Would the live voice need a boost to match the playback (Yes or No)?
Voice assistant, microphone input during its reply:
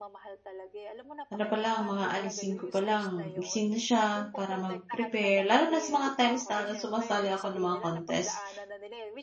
No